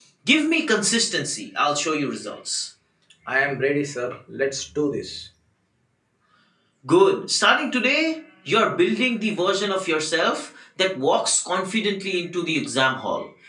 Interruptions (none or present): none